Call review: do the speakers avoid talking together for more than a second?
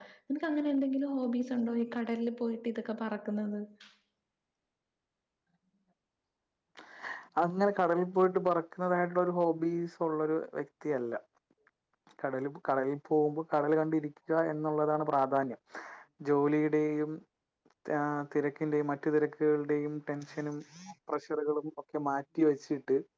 Yes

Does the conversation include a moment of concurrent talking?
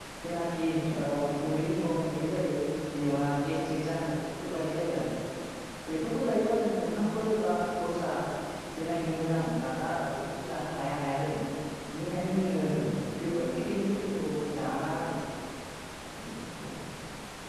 No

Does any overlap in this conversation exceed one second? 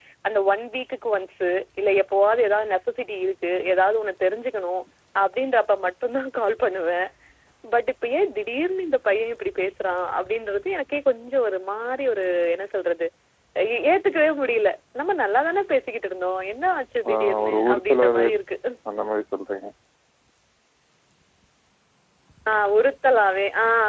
Yes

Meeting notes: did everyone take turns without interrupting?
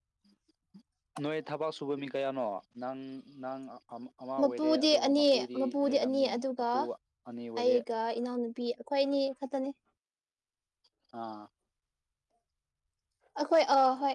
No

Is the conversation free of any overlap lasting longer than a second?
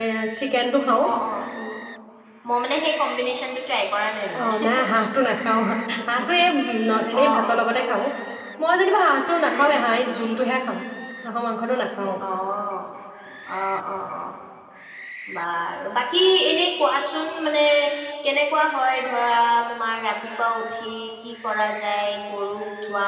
Yes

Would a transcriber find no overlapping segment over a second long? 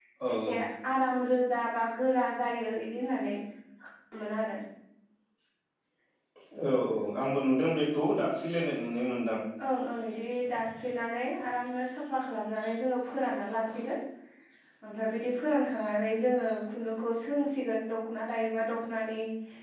Yes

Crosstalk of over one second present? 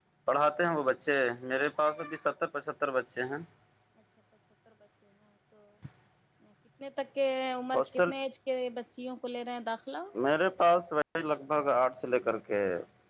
No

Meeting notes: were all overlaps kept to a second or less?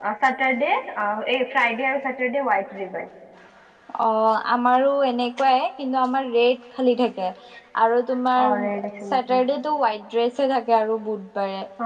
Yes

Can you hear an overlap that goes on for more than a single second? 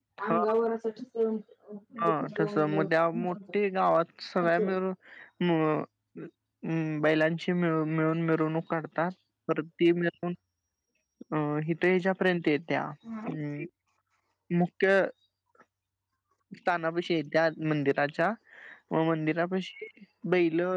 Yes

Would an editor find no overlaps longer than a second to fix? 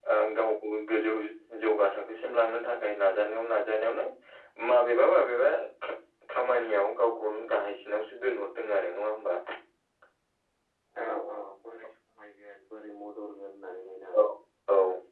Yes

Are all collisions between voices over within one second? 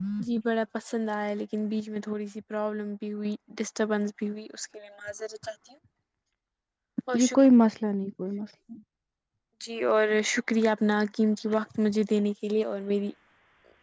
Yes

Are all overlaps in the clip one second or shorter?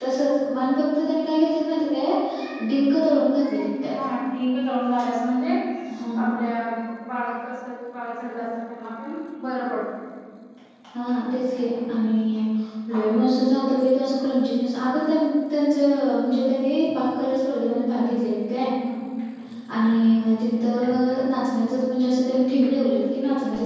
Yes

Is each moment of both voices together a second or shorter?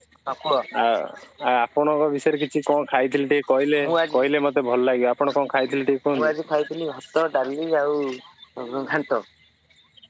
Yes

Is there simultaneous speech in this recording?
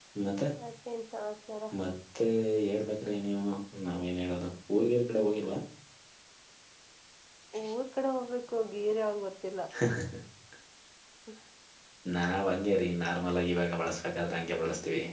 No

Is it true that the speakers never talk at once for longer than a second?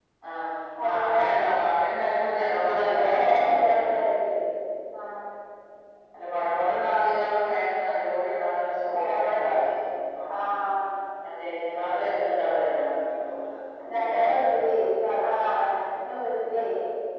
No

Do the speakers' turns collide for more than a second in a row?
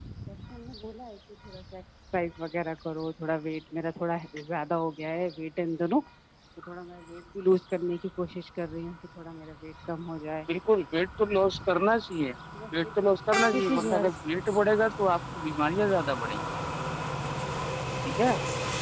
Yes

